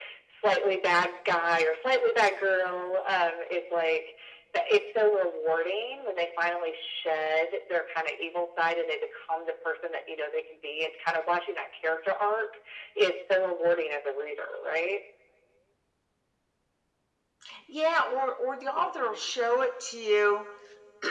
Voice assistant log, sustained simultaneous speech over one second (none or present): none